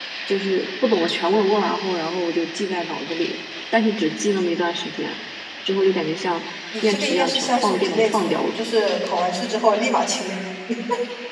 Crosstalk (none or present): present